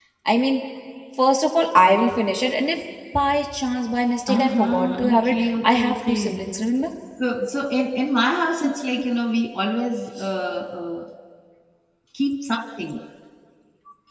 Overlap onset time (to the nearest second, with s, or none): 4 s